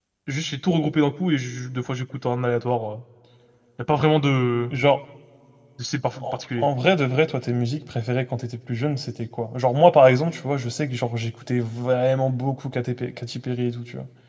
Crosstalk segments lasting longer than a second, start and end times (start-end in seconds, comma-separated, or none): none